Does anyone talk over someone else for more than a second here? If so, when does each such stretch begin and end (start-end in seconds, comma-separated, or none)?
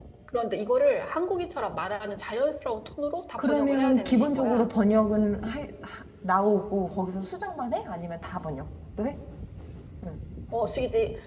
3.4-4.7